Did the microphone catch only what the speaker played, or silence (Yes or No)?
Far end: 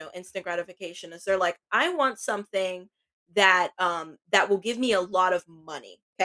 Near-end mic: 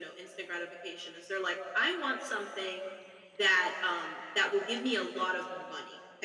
Yes